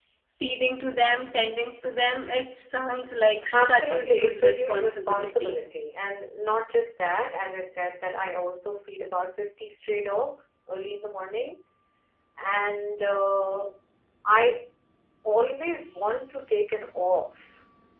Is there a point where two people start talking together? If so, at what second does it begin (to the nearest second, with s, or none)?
4 s